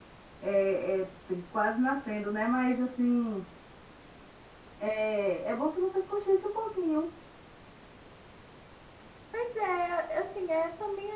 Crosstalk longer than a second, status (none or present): none